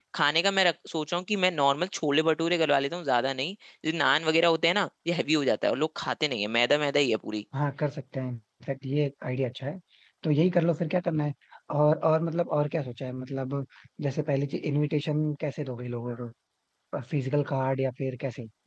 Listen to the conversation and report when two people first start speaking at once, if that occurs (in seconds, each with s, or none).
none